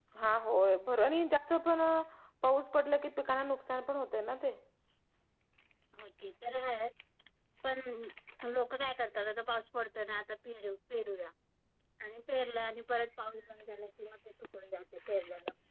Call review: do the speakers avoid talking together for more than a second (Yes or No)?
Yes